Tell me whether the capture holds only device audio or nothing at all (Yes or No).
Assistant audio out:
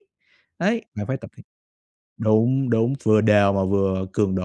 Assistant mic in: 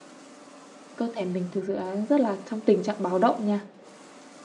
No